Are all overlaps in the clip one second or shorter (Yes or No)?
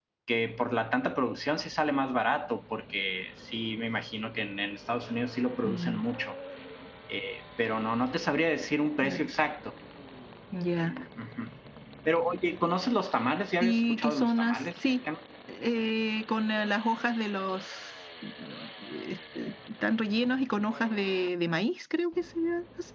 No